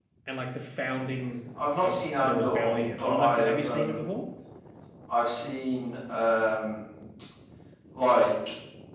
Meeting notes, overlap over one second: present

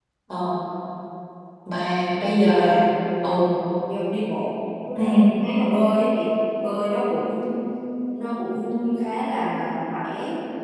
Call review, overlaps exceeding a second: none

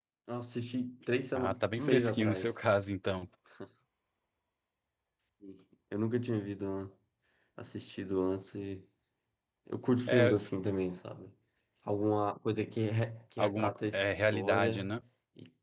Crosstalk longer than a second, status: present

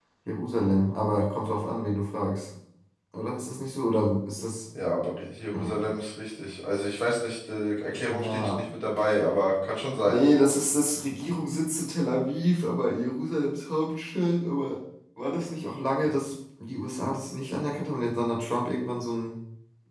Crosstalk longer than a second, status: none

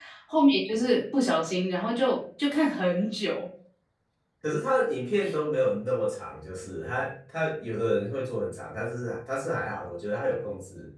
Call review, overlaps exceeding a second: none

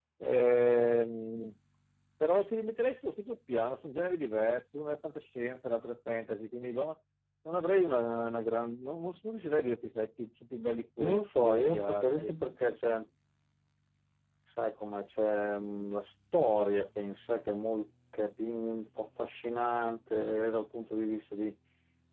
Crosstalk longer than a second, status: present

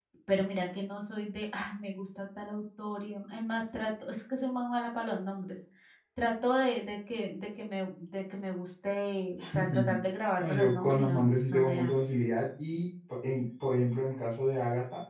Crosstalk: present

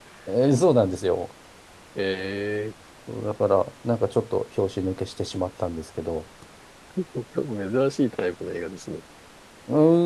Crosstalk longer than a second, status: none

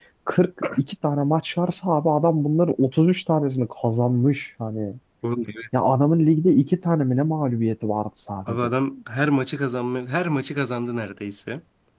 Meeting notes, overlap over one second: none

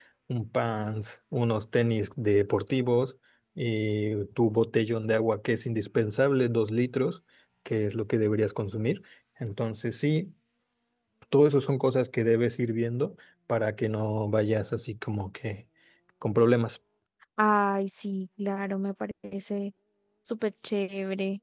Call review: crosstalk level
none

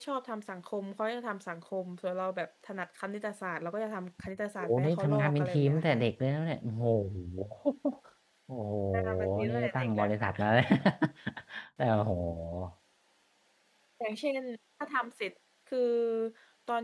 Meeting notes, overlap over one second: present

